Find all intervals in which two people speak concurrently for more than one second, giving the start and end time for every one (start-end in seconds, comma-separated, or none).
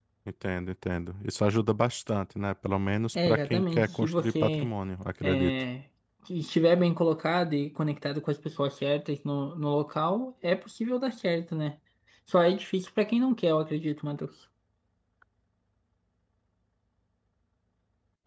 3.1-4.7